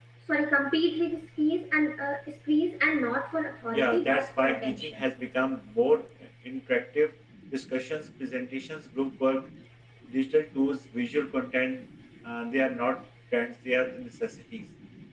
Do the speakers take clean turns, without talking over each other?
No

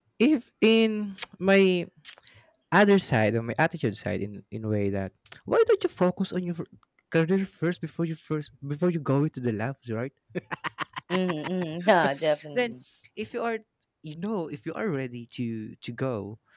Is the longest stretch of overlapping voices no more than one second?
Yes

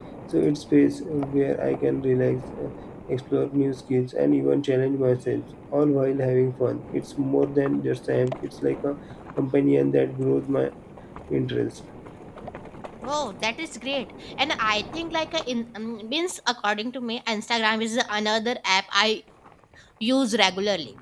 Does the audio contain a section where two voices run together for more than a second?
No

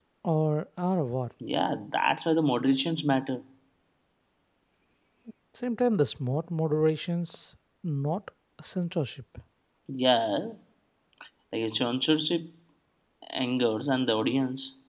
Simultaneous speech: No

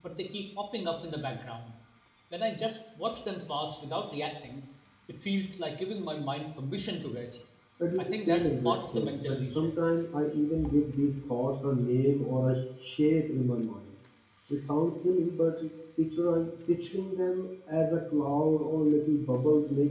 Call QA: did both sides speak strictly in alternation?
No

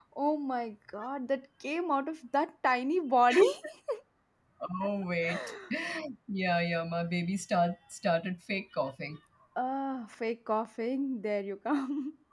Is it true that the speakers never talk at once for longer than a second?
Yes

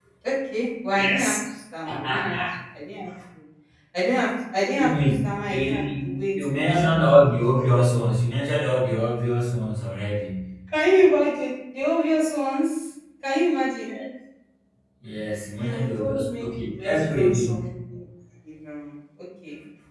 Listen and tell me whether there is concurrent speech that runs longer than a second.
Yes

